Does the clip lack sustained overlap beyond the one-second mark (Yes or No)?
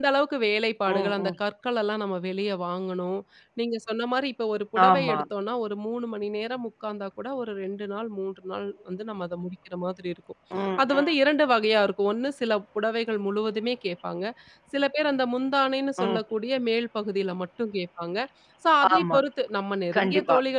Yes